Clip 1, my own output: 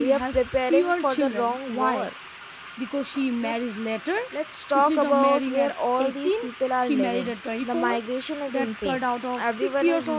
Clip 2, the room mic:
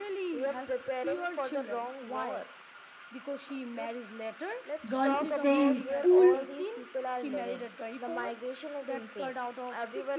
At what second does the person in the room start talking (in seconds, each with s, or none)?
4.9 s